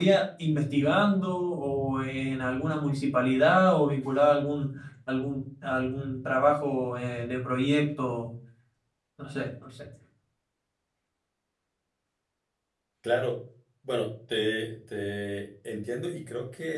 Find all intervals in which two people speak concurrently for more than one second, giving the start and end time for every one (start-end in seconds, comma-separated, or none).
none